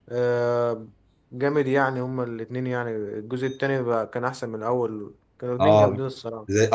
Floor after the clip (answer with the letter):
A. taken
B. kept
A